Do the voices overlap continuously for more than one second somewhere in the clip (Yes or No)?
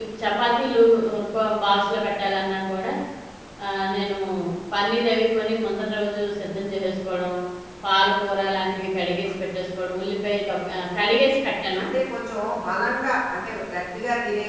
No